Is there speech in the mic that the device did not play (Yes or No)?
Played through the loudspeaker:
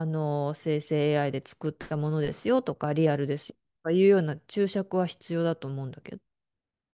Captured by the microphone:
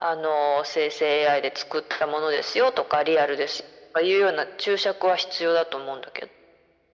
No